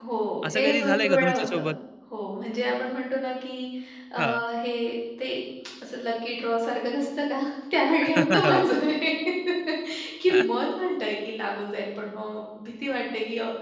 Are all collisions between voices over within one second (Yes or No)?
No